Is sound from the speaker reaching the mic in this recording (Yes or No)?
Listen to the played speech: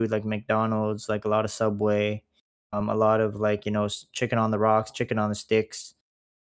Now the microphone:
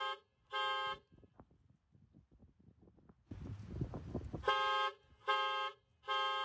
No